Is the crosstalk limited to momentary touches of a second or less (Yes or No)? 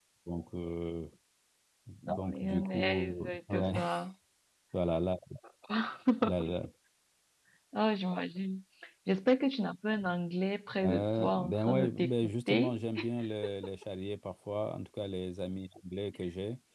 No